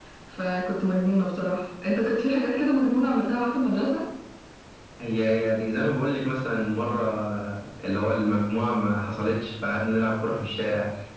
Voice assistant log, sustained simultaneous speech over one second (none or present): none